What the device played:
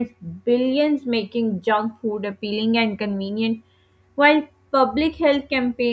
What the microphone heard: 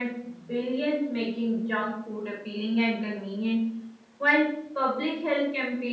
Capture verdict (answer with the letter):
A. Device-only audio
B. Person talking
A